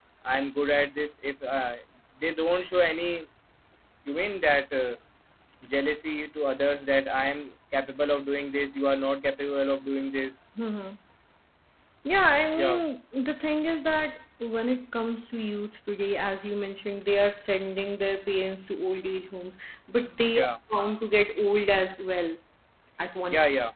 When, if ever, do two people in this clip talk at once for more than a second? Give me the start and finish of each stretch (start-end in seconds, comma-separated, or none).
none